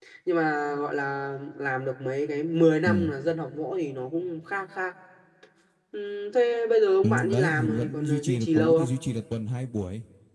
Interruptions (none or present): present